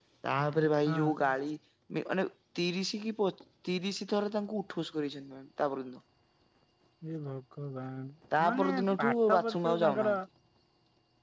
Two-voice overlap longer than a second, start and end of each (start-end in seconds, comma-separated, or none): 8.6-10.2